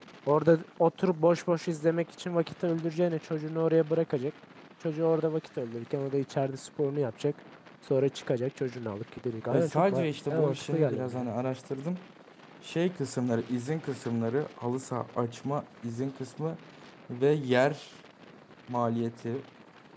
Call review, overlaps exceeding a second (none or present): present